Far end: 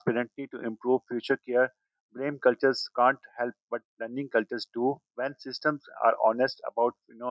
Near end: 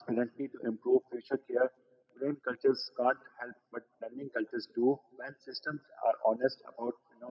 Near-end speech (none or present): none